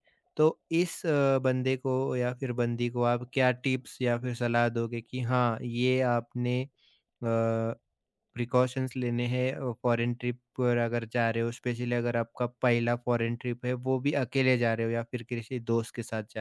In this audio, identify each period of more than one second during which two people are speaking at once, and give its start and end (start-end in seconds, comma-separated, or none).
none